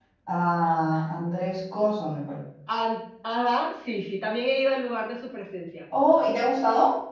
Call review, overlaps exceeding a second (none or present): none